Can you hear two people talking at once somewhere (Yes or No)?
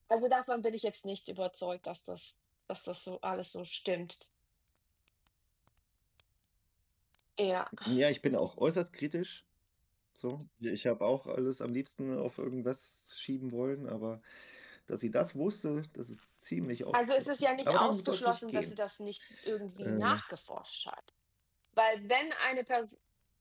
Yes